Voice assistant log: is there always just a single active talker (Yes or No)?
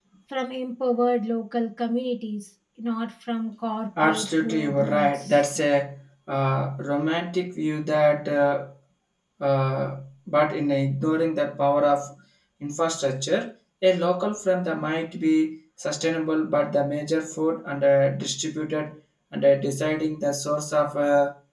No